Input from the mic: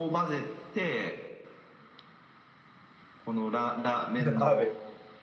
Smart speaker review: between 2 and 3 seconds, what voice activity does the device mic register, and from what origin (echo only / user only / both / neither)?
neither